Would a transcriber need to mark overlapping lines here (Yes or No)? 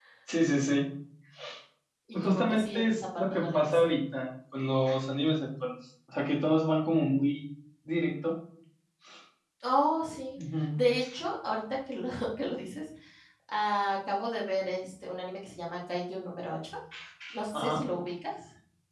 Yes